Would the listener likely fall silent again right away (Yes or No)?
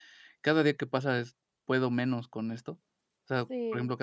Yes